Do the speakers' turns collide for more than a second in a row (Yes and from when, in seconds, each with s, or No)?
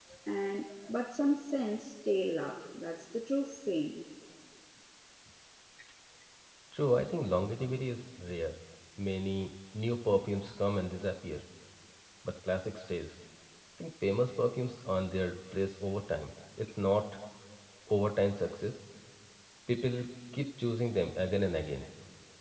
No